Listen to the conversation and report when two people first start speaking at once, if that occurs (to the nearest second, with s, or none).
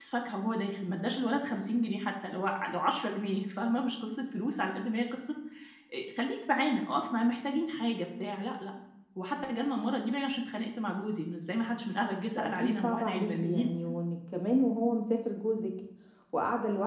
12 s